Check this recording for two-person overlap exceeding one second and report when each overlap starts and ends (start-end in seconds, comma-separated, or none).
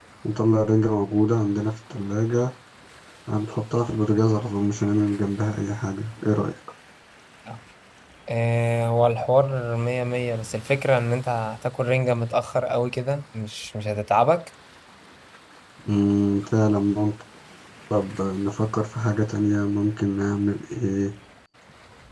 none